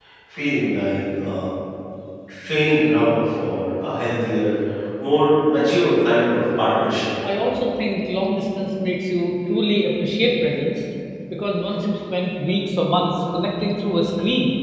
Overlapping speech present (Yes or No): No